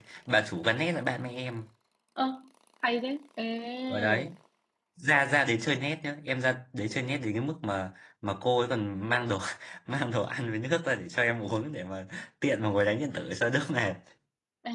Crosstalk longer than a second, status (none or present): none